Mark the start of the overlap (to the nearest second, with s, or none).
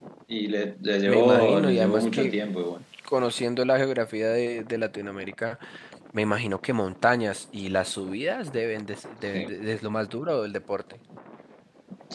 1 s